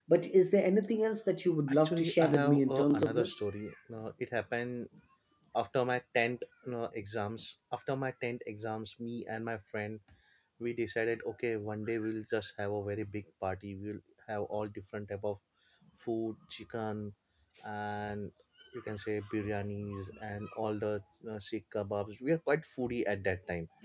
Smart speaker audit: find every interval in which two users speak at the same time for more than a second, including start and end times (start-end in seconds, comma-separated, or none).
1.7-3.4